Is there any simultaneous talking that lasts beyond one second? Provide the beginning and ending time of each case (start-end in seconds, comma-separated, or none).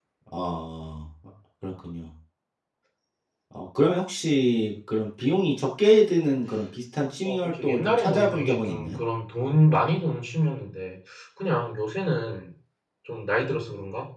7.2-9.0